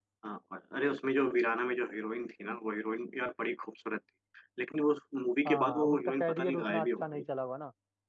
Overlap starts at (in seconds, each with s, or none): 5.5 s